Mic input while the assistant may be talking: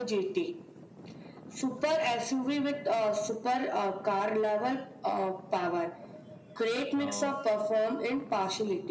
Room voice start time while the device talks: 7.0 s

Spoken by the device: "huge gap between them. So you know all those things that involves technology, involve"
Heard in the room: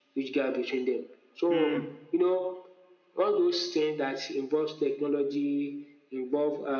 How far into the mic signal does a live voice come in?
1.5 s

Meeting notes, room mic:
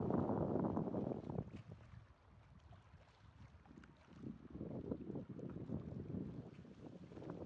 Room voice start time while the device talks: none

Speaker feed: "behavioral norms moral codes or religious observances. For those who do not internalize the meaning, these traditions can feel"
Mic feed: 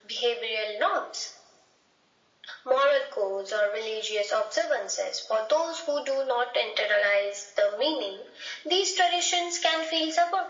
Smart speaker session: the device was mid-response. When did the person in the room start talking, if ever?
none

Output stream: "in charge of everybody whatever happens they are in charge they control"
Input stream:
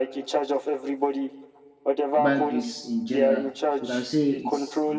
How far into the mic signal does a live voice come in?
2.2 s

